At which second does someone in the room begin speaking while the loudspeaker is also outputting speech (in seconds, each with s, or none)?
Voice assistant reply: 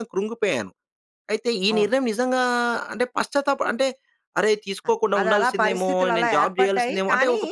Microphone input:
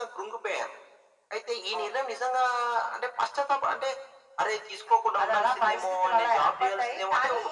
none